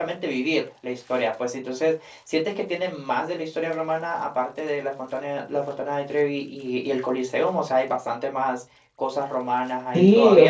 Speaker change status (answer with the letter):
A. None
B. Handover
B